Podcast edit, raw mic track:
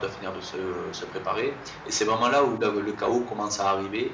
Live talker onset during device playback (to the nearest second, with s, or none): none